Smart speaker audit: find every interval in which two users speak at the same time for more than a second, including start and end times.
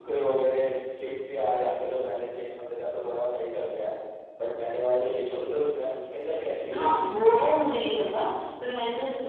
none

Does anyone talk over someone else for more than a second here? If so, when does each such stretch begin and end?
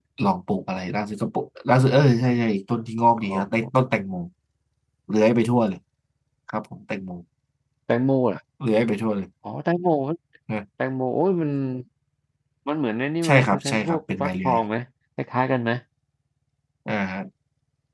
13.2-14.6

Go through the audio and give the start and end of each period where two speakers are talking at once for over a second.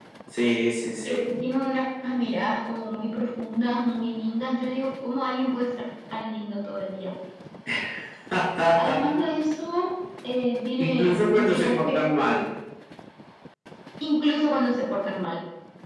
10.8-12.1

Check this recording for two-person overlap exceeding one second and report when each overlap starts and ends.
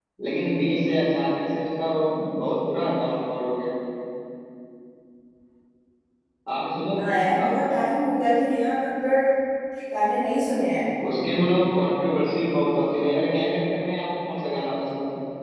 none

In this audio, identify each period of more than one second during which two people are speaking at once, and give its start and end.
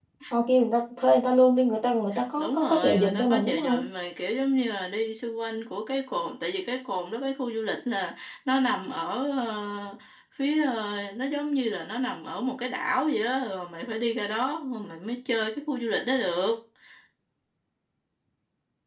2.4-3.9

